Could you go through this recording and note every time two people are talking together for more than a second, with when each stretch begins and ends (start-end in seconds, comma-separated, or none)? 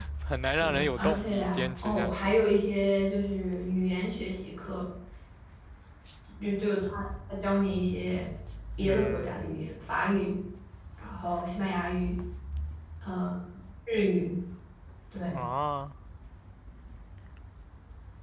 0.6-2.3